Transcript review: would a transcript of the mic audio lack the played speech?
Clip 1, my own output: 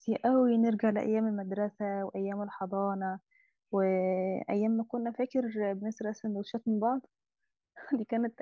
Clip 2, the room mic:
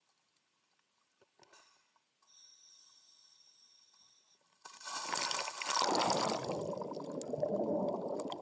Yes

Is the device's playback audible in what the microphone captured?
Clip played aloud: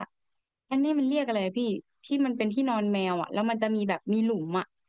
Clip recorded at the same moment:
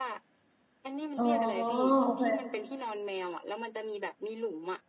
Yes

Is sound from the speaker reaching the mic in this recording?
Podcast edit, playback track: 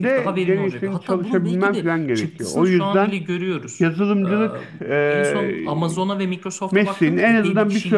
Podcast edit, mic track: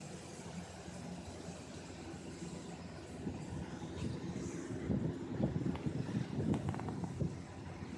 No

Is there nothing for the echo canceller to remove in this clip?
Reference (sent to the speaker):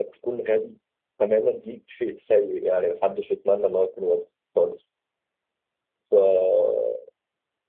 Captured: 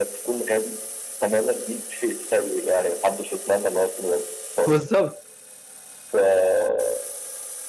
No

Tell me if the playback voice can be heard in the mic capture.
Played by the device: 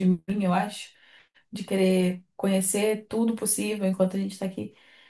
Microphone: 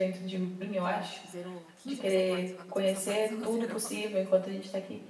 Yes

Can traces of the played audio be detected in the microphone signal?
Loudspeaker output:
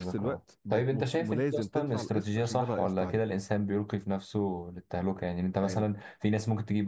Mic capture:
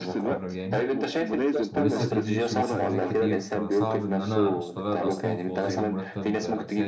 Yes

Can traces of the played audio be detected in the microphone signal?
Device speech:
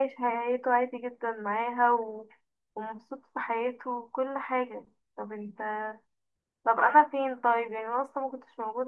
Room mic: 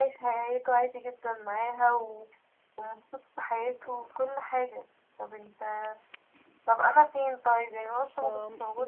Yes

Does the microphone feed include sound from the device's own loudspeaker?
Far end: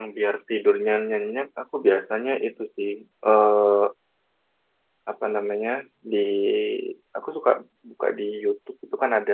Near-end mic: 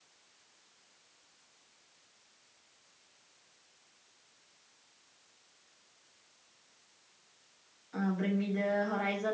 No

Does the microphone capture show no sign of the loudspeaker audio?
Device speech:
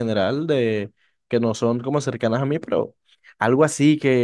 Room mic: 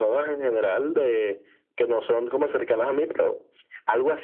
No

